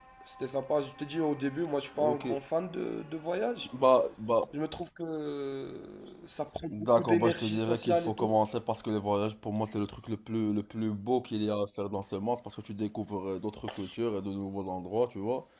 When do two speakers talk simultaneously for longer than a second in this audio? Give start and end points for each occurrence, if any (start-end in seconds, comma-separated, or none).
6.7-8.3